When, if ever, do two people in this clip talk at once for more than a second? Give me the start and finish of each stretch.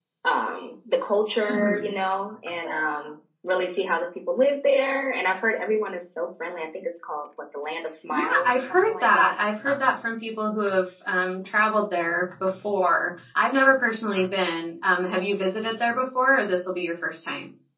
8.1-9.3

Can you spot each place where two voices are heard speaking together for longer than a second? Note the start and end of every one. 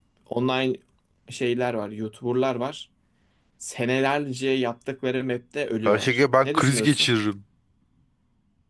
5.8-7.1

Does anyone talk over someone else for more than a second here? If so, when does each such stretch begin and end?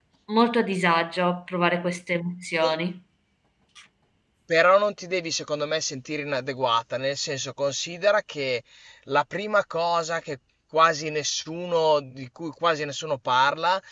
none

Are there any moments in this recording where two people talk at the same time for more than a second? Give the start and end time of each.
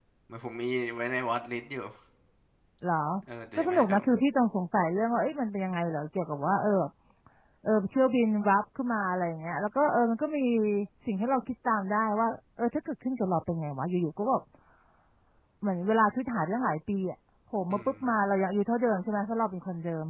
none

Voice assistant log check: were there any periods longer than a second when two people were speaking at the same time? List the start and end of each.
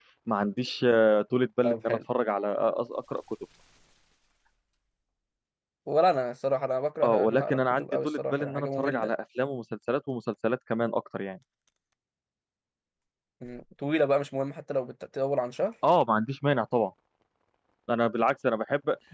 7.0-9.1

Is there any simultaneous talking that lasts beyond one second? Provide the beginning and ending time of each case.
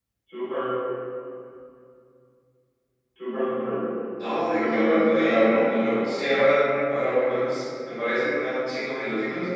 4.5-5.9

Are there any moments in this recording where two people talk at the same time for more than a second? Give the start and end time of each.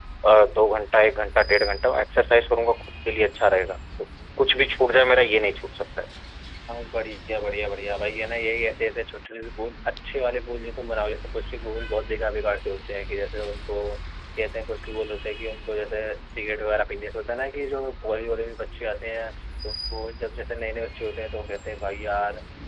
none

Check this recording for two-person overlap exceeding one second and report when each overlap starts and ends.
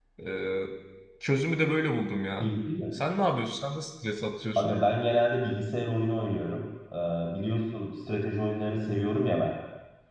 none

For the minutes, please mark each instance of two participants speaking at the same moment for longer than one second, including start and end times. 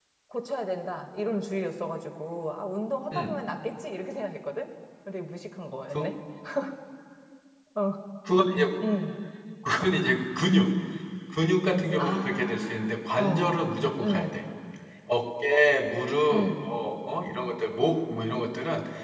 12.0-13.6

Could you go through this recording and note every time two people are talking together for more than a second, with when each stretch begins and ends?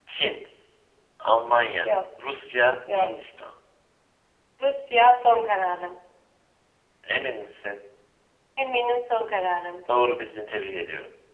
none

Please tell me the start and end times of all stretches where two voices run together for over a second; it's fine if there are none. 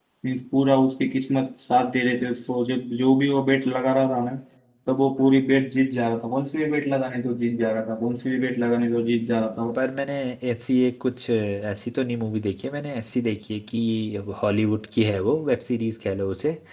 none

